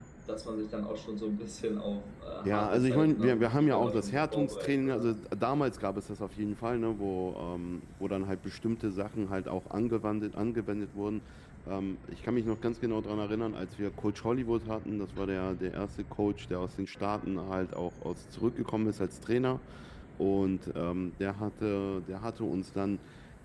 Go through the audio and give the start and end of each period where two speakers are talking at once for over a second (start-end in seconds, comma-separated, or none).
2.4-5.1